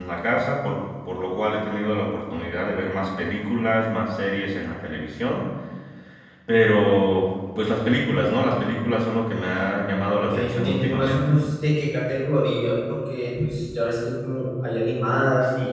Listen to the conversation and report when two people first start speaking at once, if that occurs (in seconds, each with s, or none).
10.0 s